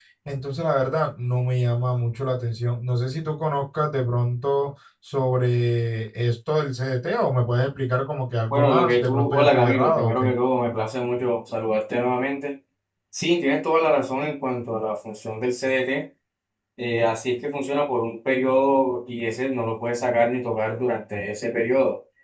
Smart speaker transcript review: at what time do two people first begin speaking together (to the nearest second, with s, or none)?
9 s